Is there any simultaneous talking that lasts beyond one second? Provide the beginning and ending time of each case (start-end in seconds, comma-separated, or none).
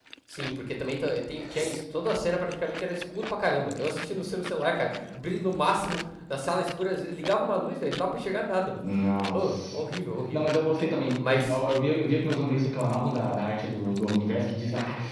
none